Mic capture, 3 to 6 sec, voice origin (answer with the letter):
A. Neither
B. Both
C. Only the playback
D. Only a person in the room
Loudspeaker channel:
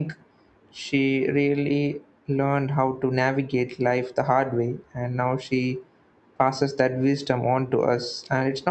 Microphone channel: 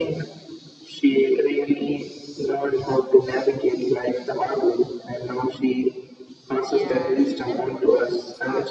C